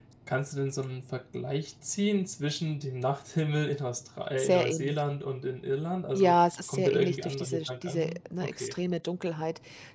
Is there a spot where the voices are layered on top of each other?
Yes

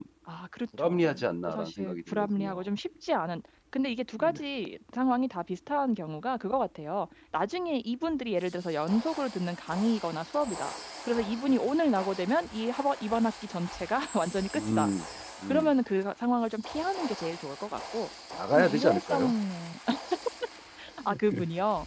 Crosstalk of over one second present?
Yes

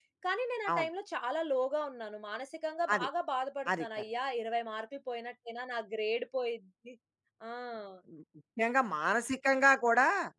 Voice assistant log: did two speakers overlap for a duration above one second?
No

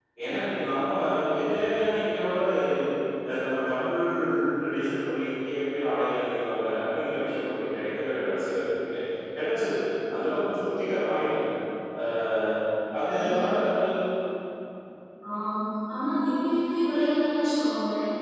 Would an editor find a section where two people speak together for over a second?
No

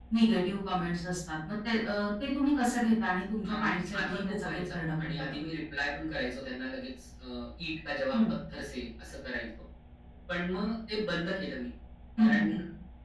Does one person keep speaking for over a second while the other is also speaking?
Yes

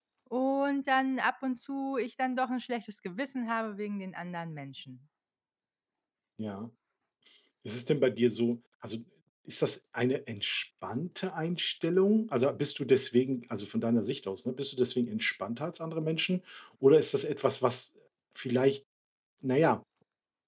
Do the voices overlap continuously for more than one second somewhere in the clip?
No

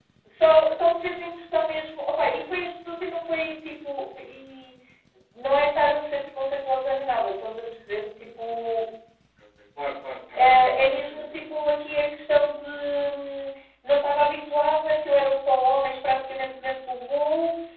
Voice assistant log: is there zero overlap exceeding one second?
No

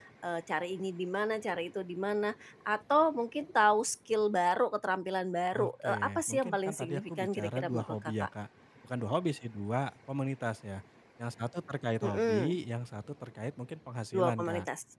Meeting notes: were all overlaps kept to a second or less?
No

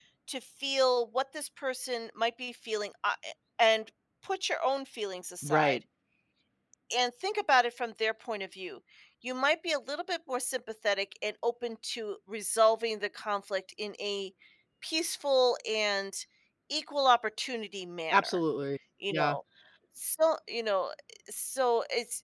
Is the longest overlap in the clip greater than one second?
No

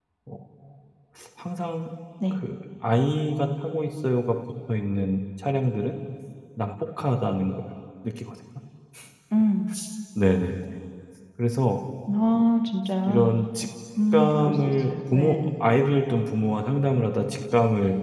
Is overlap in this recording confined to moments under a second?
No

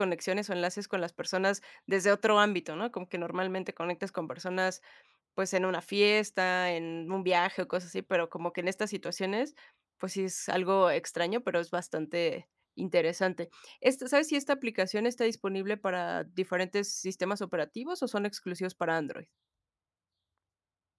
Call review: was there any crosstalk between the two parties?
No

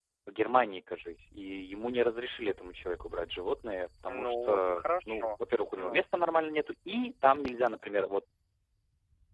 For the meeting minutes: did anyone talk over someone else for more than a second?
Yes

